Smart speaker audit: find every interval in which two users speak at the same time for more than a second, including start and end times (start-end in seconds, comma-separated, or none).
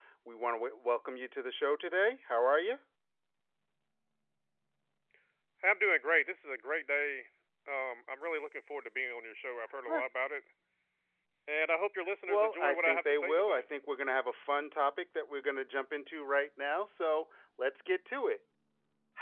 12.3-13.6